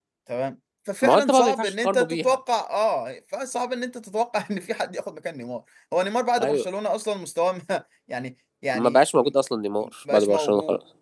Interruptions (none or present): present